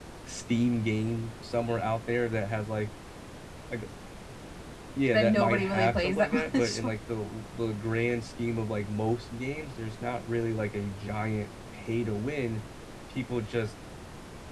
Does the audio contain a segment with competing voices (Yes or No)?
Yes